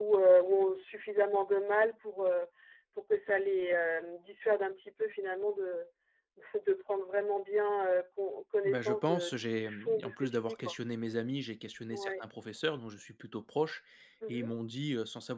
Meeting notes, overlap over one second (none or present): present